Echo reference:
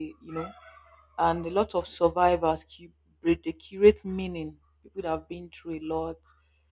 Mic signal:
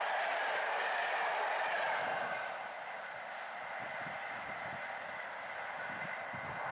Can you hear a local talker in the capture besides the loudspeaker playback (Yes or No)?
No